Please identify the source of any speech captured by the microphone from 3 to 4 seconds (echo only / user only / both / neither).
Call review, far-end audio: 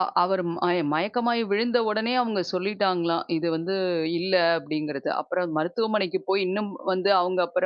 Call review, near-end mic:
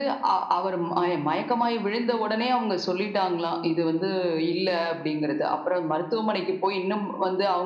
echo only